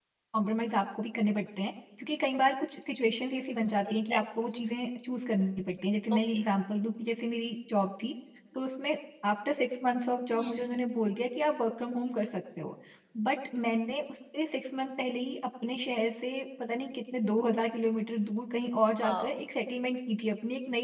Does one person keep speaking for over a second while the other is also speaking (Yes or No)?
No